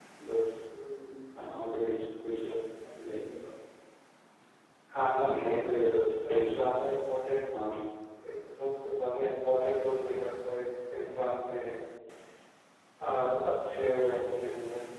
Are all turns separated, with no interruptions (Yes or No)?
No